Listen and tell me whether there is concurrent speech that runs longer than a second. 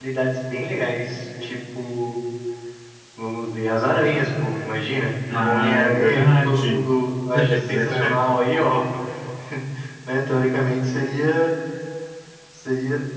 Yes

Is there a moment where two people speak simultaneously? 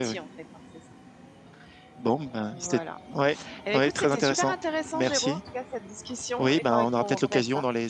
Yes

